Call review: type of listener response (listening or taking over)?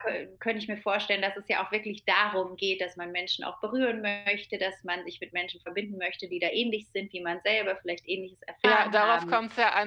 taking over